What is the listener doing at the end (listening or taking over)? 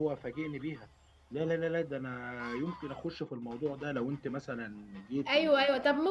taking over